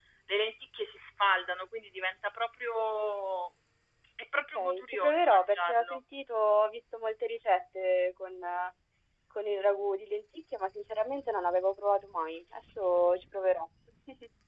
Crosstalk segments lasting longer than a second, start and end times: 4.5-6.0

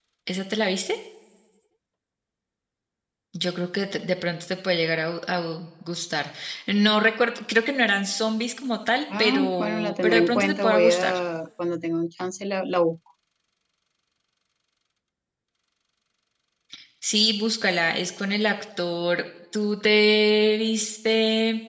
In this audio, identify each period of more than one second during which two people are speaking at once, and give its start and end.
9.2-11.1

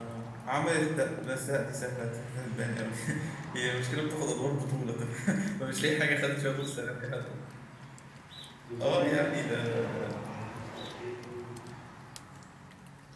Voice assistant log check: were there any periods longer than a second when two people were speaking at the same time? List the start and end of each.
8.8-10.2

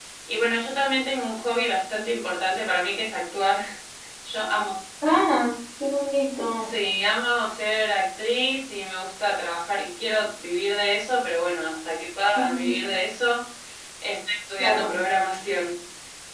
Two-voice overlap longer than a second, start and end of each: none

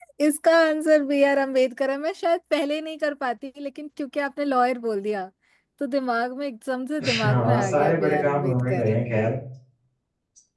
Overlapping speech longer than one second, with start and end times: 7.0-8.8

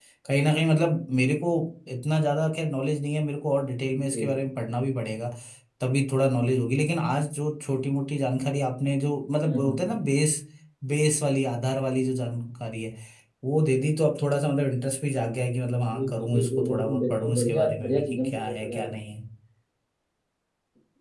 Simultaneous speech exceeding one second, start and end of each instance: 15.8-19.0

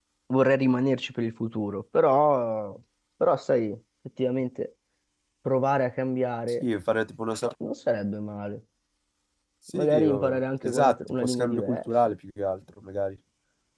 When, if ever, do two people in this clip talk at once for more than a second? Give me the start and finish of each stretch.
9.7-11.9

